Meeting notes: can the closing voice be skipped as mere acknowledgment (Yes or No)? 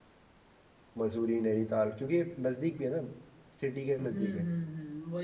No